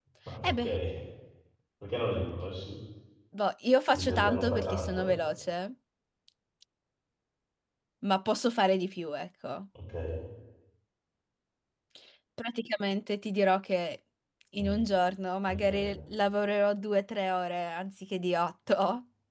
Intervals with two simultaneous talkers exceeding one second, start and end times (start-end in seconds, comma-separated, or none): 3.9-5.2